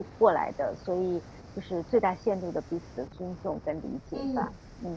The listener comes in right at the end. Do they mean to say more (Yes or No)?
Yes